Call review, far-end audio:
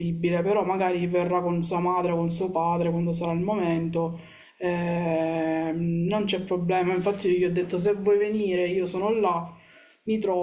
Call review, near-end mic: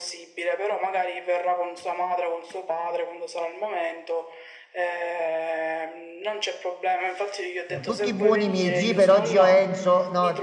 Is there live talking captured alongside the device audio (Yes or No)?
Yes